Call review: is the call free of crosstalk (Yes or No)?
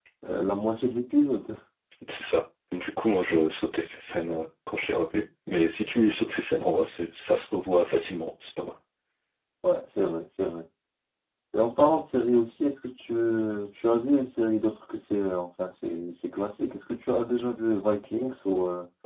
Yes